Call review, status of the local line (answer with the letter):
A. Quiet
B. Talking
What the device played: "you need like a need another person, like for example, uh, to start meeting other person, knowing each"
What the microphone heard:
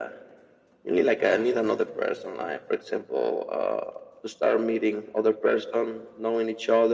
B